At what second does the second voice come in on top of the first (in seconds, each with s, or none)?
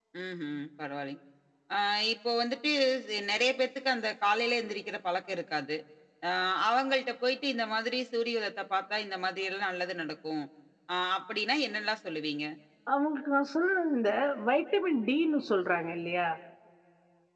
none